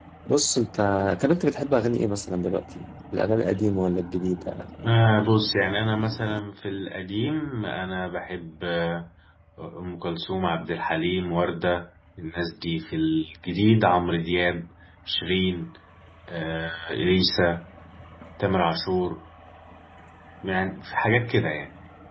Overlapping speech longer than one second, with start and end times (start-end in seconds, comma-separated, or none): none